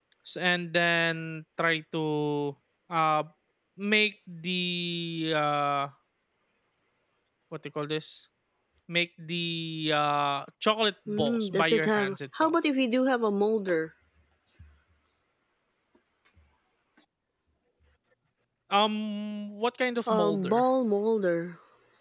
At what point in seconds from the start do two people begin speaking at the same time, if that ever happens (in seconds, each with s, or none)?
11.1 s